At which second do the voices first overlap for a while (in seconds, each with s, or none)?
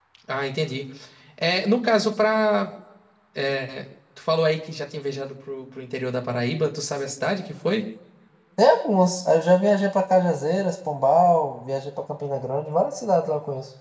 none